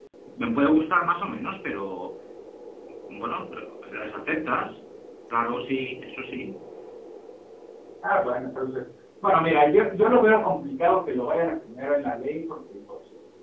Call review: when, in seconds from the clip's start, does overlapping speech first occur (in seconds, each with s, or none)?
none